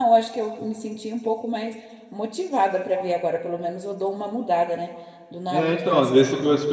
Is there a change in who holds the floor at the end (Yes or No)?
Yes